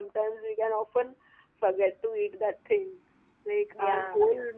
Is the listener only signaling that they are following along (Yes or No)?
Yes